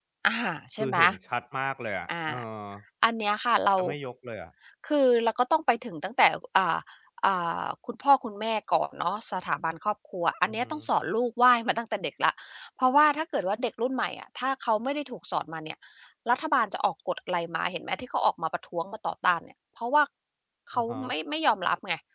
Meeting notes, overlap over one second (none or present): none